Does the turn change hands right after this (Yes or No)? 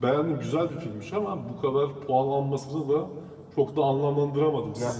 Yes